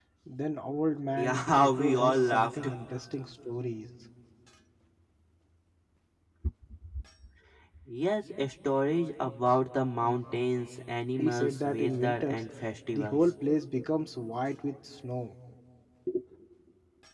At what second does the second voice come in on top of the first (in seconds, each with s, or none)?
1.2 s